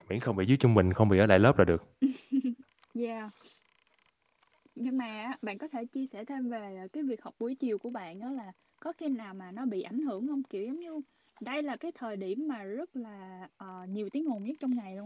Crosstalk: none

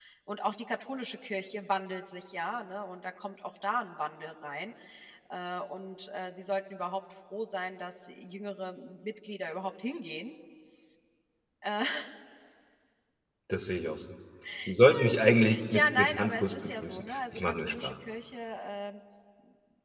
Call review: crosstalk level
present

